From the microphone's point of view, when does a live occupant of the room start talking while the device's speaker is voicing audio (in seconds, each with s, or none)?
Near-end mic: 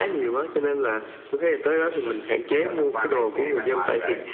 1.7 s